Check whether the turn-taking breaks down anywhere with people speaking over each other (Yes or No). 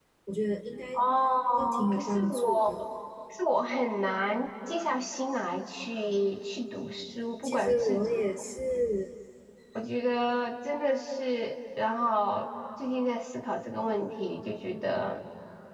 Yes